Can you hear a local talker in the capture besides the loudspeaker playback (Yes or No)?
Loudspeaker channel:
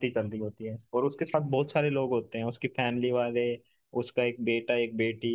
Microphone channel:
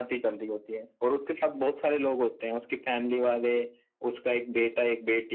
No